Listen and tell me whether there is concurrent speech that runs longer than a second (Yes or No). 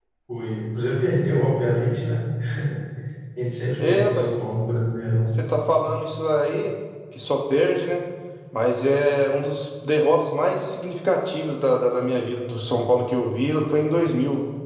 No